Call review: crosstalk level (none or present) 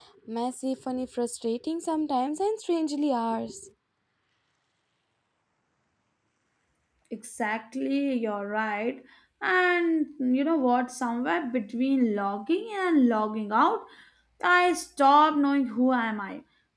none